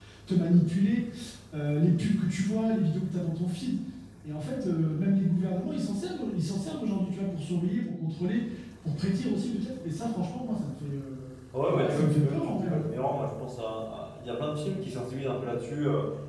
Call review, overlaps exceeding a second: present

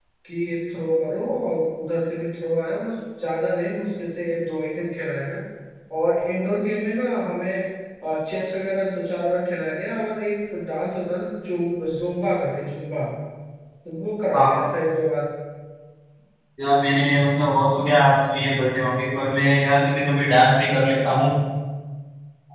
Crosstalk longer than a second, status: none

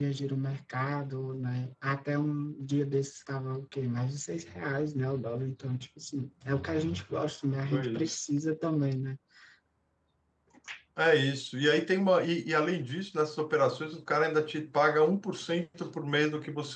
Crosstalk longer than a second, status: none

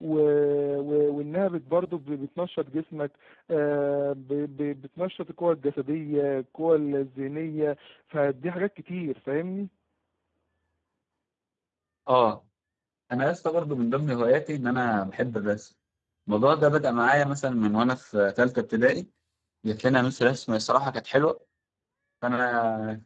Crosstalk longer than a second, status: none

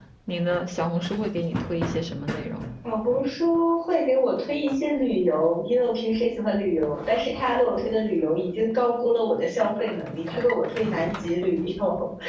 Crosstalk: none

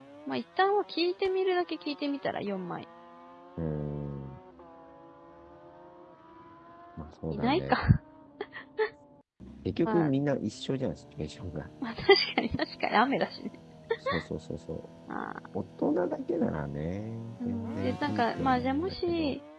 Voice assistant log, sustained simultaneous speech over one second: present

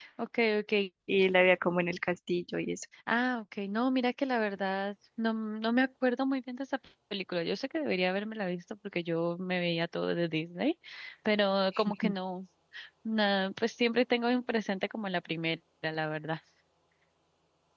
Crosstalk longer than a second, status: none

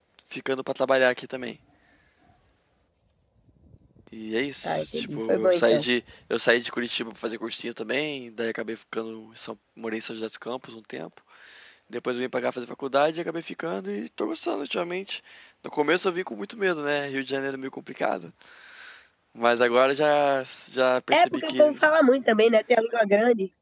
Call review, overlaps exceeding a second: present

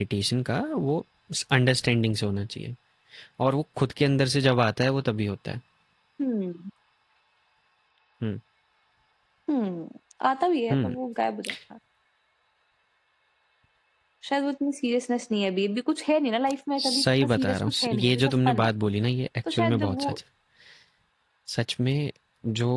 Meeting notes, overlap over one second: present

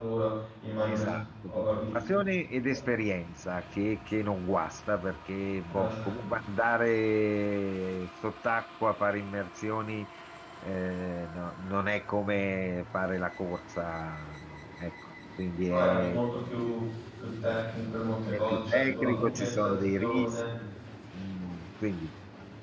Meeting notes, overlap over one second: present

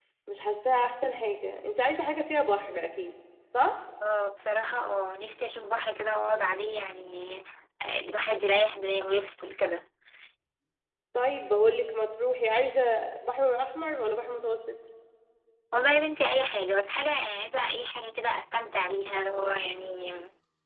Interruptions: none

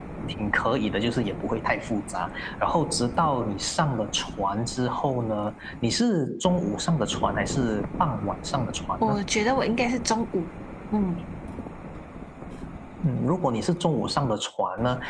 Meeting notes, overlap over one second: none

